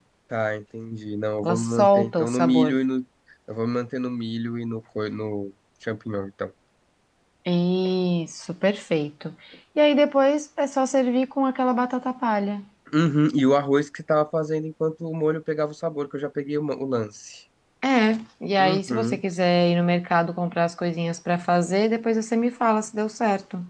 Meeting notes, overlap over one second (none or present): present